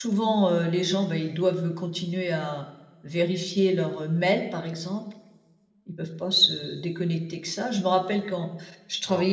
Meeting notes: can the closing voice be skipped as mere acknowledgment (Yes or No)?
Yes